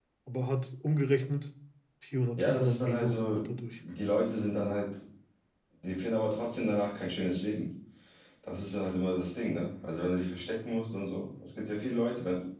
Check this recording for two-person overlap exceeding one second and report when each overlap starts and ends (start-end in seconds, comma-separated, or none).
2.4-3.6